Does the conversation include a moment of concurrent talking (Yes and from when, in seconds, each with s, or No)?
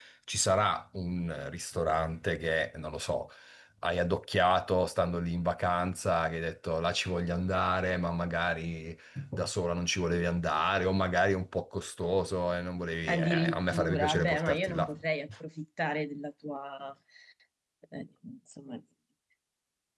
Yes, from 13.1 s